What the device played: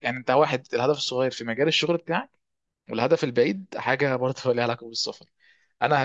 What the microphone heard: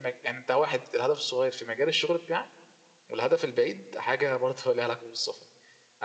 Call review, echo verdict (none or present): present